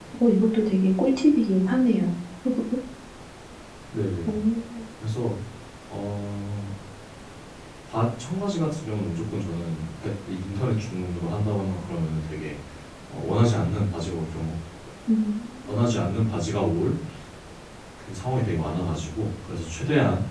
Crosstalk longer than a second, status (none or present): none